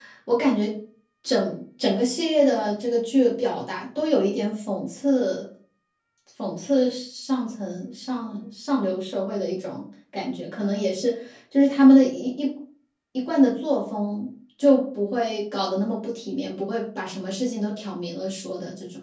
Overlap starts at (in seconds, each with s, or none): none